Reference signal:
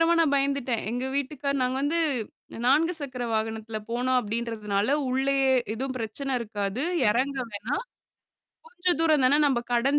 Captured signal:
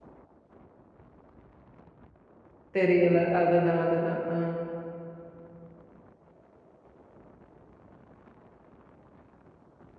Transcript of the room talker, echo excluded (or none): தெரியல. அதுதான். அதுதான். ஆ.